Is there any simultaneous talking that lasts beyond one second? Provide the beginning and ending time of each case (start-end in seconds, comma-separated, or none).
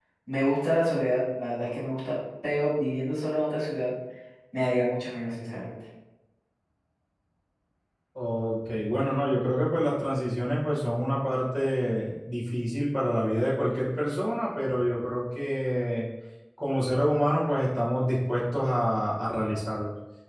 none